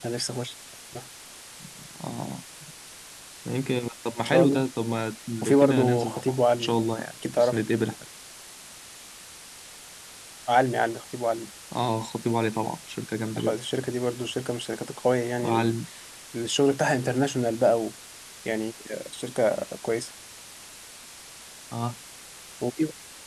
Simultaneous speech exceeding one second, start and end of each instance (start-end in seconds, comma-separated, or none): 5.4-6.7